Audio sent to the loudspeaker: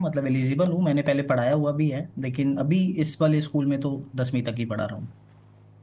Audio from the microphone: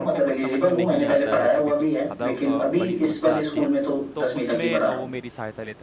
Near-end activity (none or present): present